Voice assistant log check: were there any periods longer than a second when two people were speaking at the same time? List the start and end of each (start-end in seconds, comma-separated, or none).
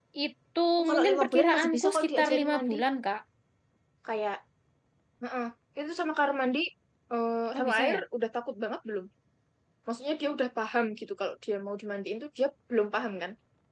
0.8-2.8